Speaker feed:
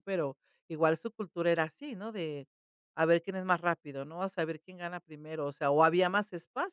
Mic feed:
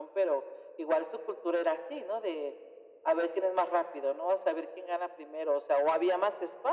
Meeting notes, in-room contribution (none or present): none